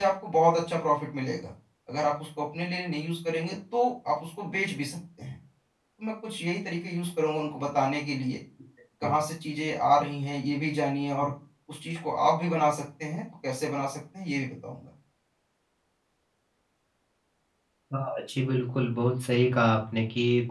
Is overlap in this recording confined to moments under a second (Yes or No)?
Yes